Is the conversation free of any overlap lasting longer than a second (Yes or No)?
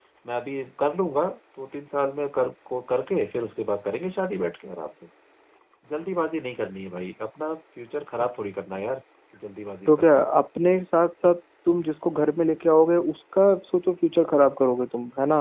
Yes